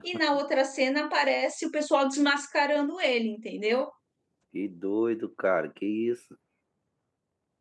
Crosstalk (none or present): none